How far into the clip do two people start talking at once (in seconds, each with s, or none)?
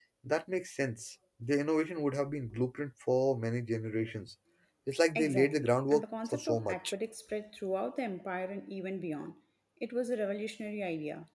5.2 s